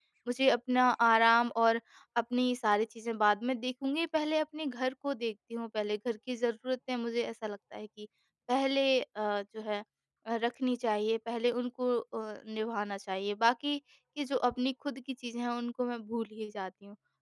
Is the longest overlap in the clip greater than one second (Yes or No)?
No